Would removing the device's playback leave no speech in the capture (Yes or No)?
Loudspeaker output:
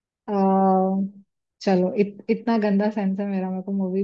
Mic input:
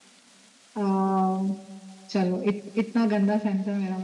Yes